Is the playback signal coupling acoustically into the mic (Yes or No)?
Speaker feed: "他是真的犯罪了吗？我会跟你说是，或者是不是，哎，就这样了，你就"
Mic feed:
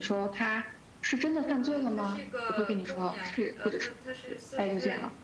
Yes